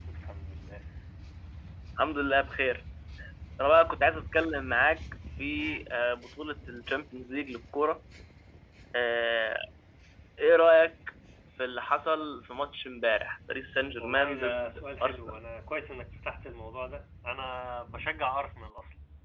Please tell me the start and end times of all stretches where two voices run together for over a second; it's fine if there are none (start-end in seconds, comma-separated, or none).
14.0-15.4